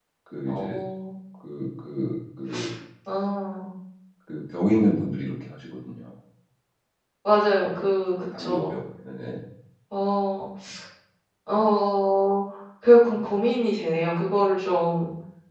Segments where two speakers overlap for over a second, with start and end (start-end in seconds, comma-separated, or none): none